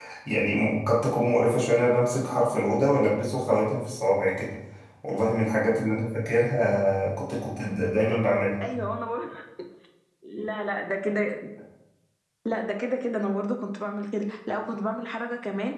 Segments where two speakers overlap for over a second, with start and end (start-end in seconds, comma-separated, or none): none